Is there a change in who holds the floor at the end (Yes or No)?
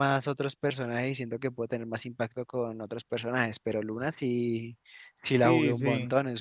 Yes